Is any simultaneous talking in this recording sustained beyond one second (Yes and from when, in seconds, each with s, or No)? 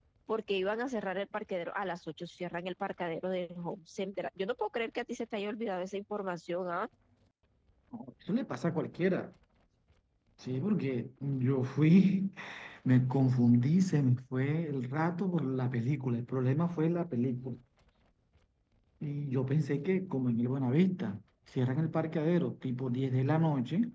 No